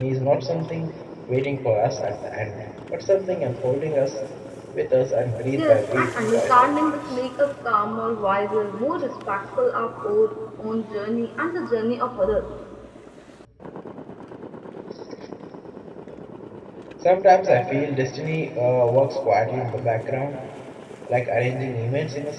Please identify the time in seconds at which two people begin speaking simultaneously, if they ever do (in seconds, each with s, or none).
5.6 s